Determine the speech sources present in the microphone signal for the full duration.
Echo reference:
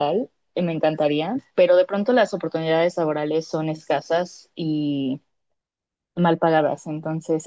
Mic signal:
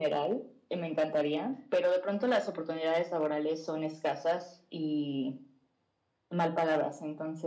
echo only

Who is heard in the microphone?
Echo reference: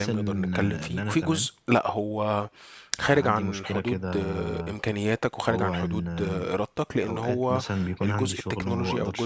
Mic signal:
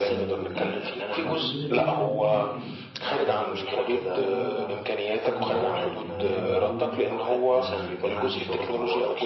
both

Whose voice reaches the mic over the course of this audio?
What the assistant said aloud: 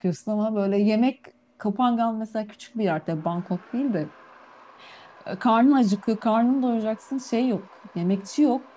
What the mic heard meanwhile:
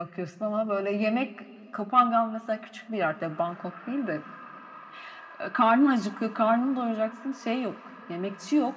echo only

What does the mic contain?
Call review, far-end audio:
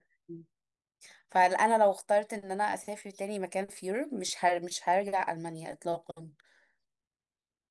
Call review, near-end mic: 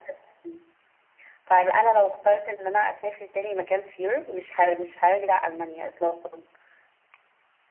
echo only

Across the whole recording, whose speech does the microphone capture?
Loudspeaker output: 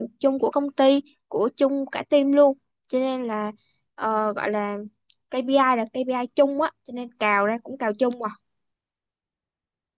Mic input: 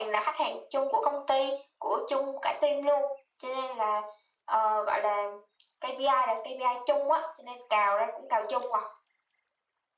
echo only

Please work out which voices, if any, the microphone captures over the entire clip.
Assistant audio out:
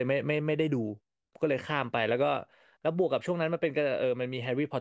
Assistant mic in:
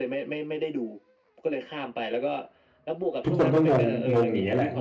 both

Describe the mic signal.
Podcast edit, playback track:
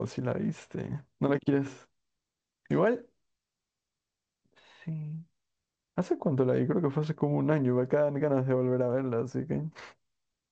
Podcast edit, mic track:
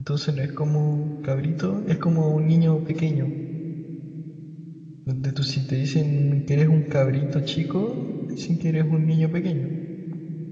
user only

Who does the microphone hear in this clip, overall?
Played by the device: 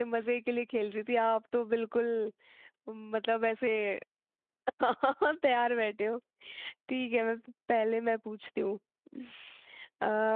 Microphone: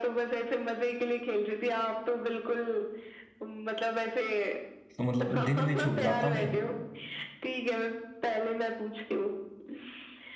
both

